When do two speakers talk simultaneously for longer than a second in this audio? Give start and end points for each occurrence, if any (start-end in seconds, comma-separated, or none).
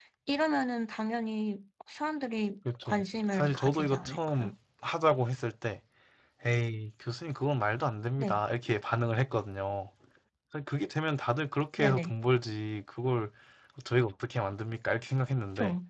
2.8-4.5